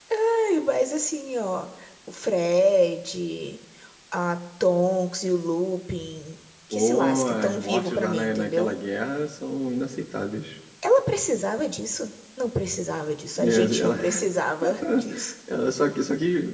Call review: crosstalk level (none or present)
present